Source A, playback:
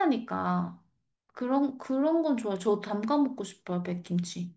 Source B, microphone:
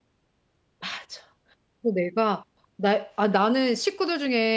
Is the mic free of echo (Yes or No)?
Yes